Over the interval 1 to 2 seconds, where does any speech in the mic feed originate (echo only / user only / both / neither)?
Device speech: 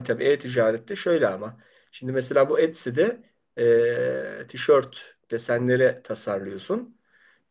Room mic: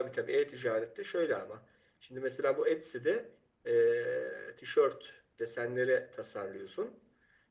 echo only